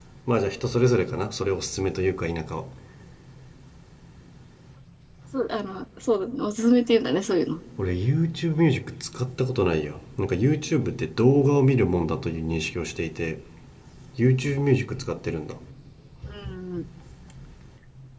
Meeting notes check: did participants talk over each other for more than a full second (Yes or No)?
No